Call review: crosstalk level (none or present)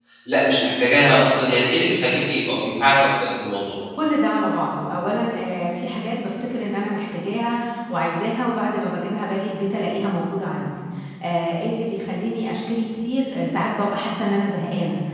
none